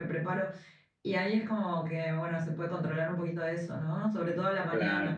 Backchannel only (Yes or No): No